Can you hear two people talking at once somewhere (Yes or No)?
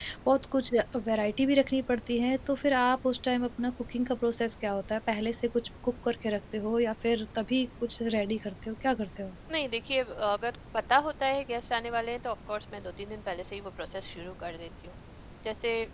No